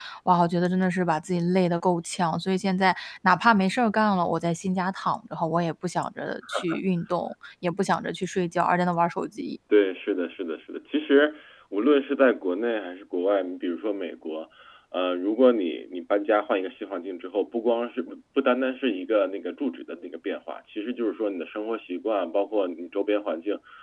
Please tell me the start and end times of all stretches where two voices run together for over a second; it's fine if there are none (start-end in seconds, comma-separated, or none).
none